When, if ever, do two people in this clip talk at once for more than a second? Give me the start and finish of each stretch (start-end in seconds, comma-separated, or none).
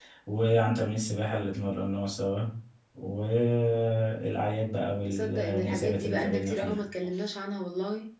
5.1-6.8